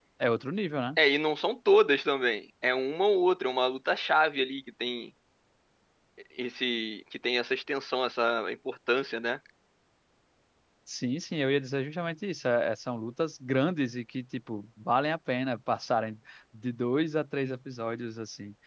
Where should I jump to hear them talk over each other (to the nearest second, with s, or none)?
none